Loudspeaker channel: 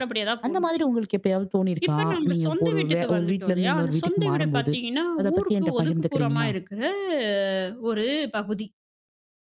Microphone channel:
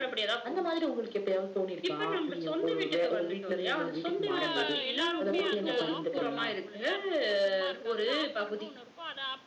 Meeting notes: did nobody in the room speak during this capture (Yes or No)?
No